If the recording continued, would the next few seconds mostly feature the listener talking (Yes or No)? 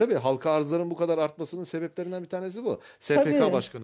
No